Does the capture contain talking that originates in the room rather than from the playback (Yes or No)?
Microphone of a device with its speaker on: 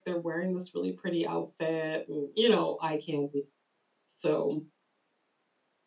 Yes